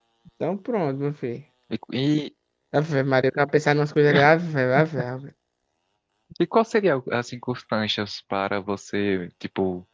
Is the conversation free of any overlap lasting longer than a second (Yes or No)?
Yes